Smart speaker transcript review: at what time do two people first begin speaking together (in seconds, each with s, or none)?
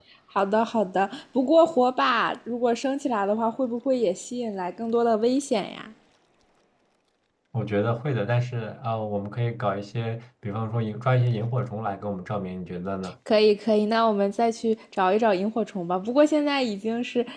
none